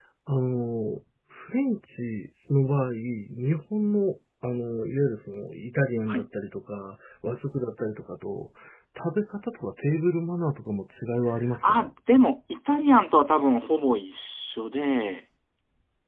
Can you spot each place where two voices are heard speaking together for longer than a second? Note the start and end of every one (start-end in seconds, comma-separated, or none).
none